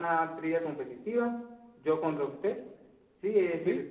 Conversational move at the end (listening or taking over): listening